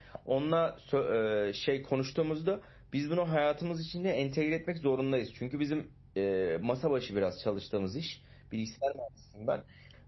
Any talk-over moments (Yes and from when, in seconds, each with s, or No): No